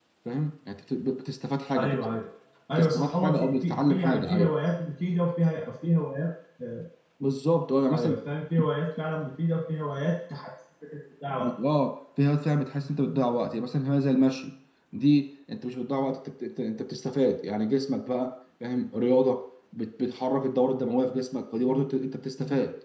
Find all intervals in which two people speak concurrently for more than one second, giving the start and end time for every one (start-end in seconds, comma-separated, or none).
2.8-4.5